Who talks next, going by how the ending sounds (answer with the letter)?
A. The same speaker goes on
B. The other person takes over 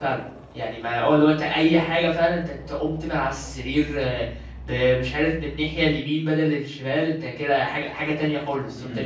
B